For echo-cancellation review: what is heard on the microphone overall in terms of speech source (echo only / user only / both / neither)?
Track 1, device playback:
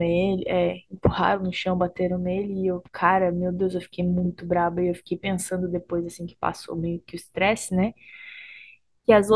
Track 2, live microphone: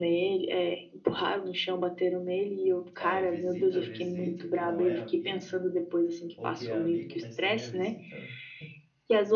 both